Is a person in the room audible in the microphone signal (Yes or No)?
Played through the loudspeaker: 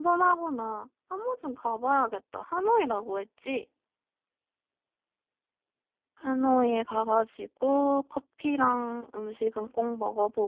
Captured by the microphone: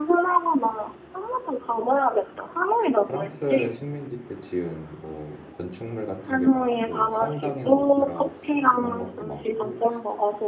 Yes